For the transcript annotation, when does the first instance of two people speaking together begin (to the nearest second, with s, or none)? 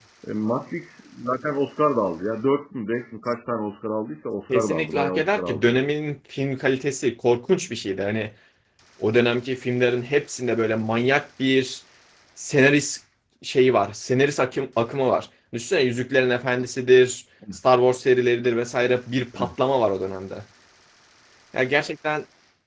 4 s